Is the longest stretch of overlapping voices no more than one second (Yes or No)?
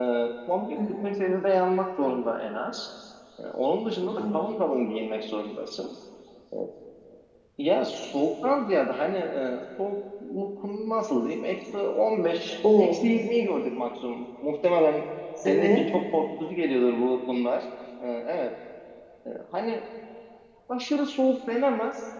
Yes